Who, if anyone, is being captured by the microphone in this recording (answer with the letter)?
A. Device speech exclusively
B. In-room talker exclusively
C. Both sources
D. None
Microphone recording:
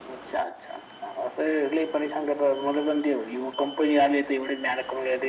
A